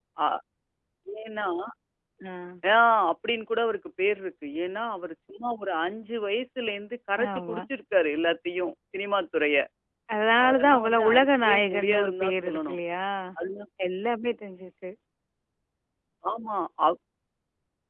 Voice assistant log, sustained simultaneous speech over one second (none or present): present